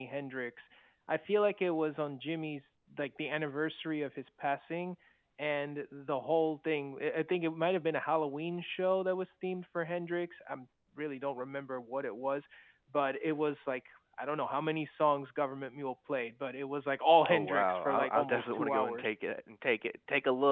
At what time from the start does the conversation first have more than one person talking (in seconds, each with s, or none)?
17.2 s